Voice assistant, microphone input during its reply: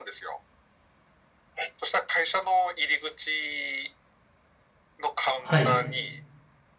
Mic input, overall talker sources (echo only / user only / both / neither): both